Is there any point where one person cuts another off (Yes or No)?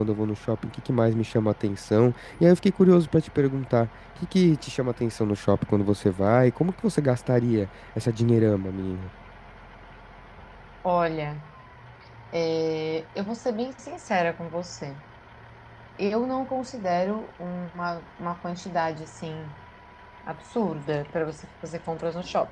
No